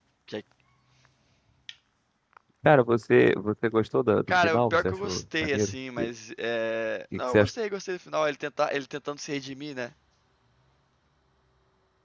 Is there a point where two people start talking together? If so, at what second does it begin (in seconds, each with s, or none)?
4.3 s